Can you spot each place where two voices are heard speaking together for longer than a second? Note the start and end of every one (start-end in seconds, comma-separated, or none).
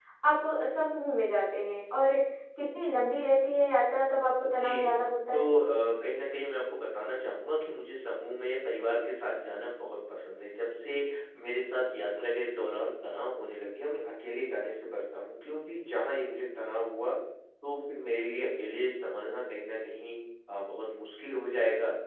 none